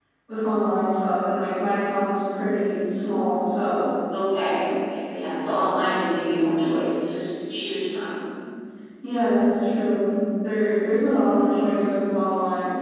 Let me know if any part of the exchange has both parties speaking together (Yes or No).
No